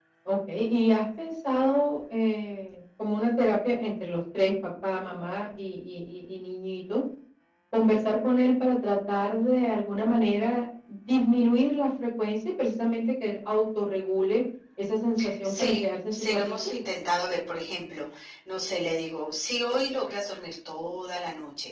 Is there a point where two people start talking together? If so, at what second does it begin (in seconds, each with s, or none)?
15.4 s